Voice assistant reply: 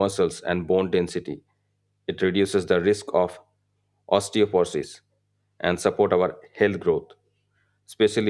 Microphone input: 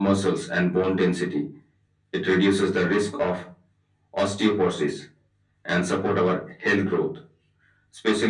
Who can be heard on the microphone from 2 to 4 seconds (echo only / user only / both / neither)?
echo only